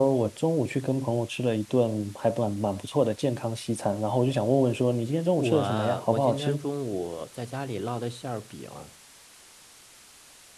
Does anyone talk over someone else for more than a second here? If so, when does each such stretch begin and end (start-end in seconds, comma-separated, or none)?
5.4-6.7